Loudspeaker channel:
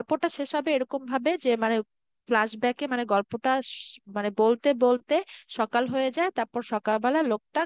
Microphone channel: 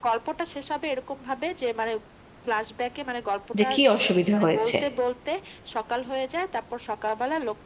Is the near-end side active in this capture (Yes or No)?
Yes